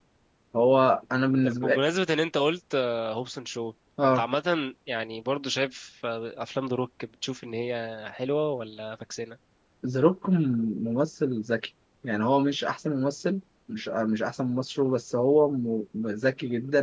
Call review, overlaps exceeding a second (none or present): none